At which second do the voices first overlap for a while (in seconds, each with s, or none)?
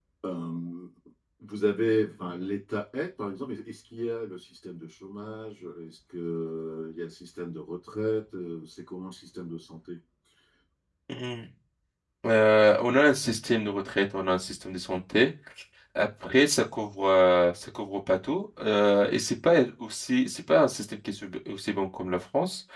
none